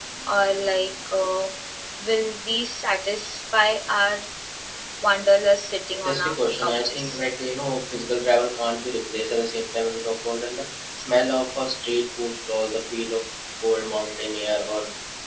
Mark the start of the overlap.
5.9 s

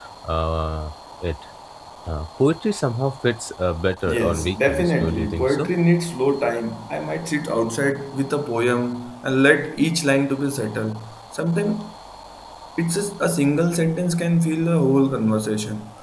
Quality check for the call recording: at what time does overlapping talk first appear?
4.1 s

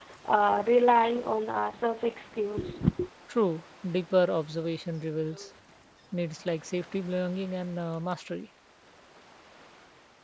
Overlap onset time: none

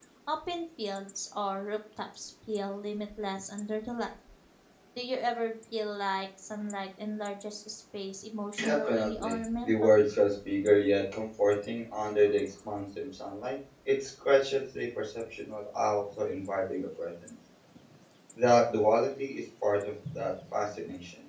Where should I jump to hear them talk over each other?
8.6 s

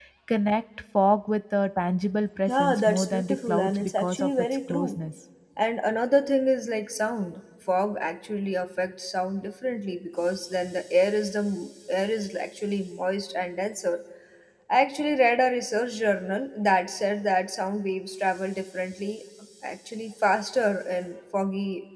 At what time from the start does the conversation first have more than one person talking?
2.5 s

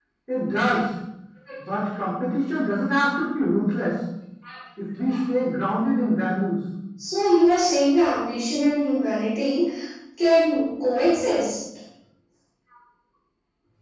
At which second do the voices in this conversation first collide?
none

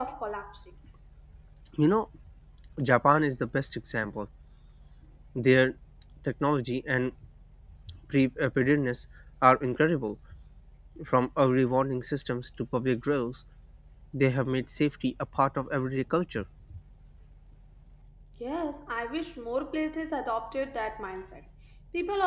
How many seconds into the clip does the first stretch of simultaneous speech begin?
none

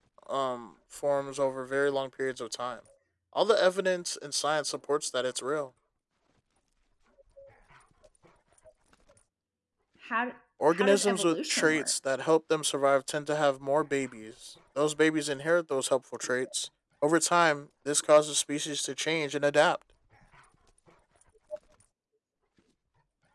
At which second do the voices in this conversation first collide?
10.7 s

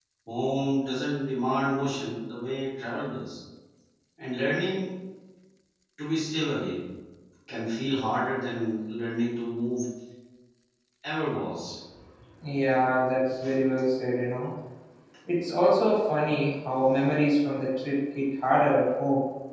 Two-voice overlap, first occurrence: none

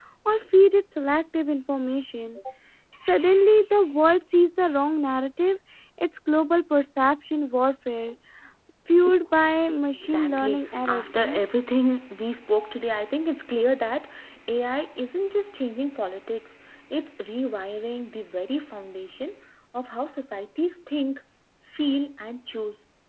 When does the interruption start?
9.9 s

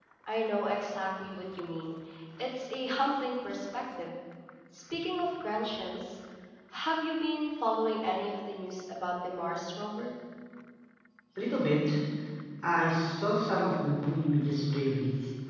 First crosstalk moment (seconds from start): none

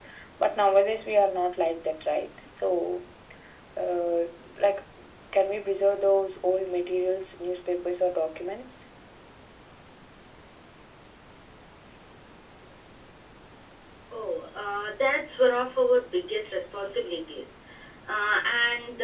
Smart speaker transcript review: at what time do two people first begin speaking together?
none

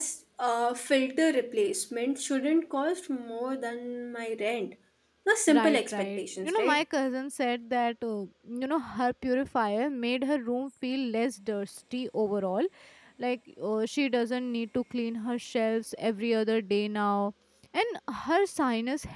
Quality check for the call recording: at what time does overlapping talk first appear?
5.5 s

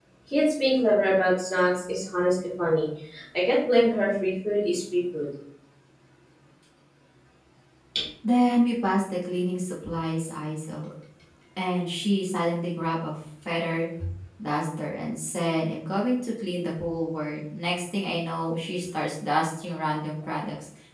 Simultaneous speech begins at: none

